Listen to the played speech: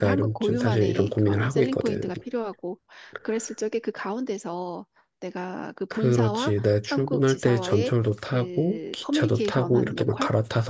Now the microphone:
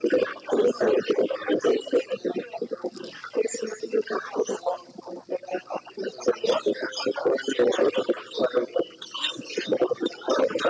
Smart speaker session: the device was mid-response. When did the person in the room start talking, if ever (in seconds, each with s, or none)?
none